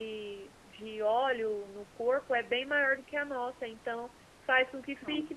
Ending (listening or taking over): listening